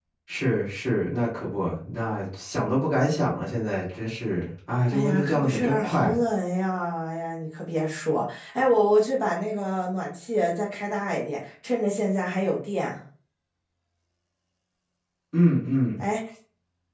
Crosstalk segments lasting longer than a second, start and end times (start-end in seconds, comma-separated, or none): 4.9-6.1